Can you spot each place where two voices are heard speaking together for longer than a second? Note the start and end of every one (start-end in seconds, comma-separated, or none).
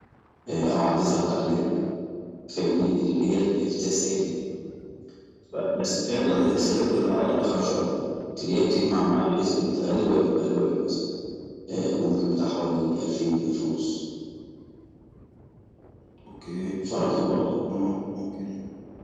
5.8-7.8